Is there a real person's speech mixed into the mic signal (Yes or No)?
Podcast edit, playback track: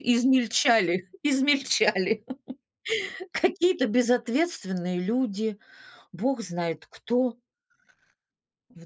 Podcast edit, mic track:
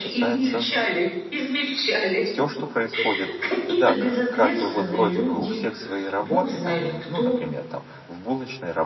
Yes